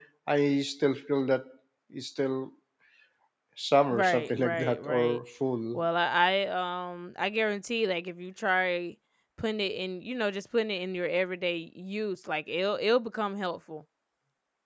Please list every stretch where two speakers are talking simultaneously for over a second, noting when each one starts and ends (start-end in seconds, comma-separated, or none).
3.9-5.2